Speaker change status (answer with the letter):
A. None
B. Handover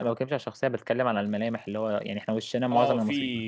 B